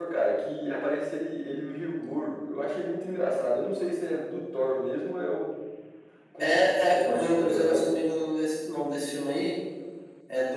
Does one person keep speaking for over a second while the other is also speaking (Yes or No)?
Yes